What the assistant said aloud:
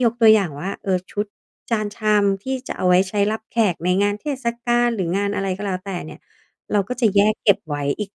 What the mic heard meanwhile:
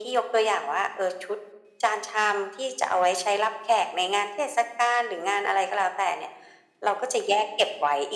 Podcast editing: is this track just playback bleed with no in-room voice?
Yes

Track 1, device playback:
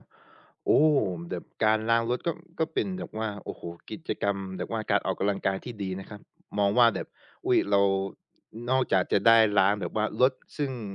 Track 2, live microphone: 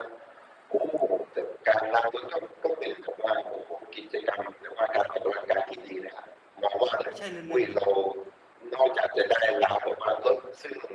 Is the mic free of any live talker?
No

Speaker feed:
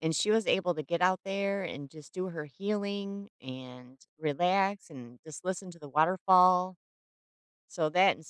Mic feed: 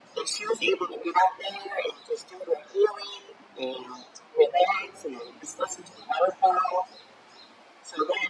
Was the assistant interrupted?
No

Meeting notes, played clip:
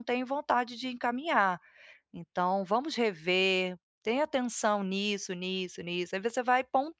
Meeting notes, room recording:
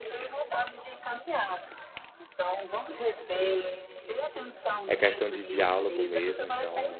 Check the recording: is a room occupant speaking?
Yes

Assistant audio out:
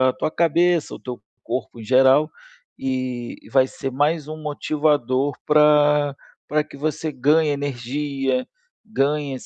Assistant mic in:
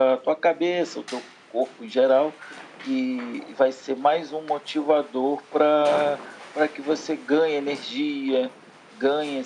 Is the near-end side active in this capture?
No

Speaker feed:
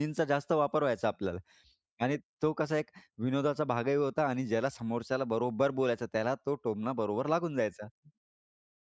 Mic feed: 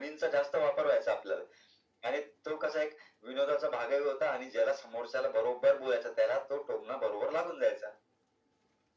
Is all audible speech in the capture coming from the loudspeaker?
Yes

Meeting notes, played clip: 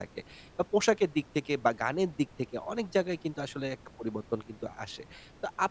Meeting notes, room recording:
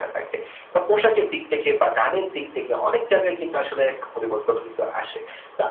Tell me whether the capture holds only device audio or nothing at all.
Yes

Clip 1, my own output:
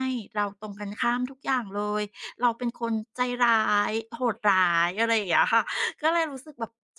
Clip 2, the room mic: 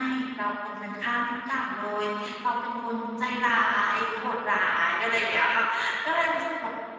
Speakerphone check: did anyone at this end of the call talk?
No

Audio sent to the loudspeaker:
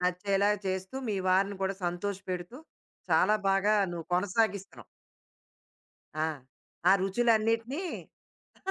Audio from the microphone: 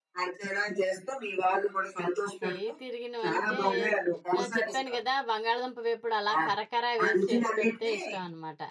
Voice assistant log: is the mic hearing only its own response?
No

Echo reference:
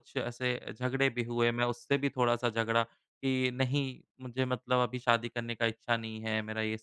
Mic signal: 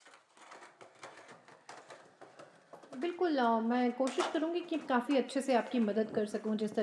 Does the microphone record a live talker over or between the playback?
Yes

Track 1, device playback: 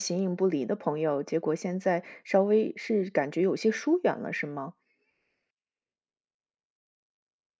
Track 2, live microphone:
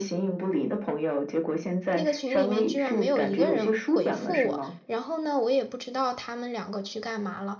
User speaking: Yes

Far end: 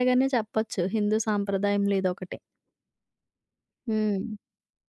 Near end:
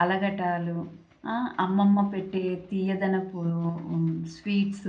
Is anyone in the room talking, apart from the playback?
Yes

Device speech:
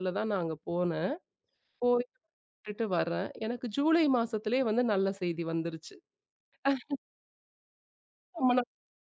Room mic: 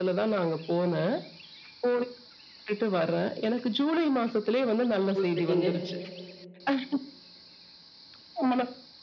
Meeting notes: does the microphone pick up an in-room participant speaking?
Yes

